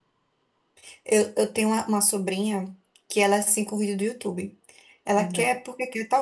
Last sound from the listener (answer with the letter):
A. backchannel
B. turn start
A